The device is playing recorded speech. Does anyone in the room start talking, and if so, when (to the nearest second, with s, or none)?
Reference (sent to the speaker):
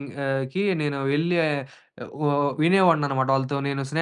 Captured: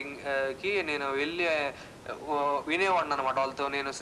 none